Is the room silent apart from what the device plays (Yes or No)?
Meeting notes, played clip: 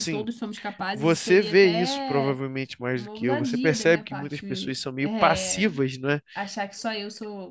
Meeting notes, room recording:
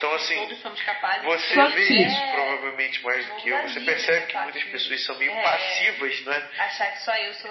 No